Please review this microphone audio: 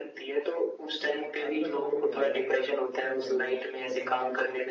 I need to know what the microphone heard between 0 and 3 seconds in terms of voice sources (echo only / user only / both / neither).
both